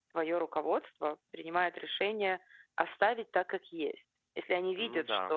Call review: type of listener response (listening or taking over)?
listening